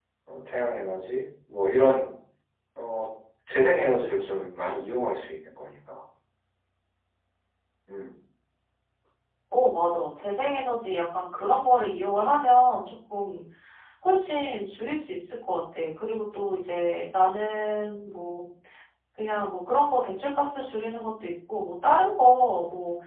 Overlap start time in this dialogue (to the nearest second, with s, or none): none